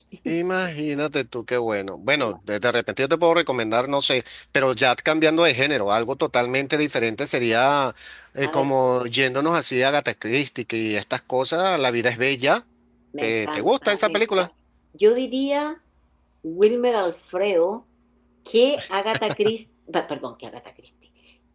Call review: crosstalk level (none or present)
present